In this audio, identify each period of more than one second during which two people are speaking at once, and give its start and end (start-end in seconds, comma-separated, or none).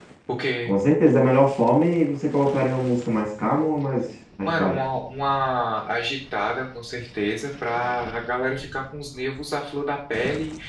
none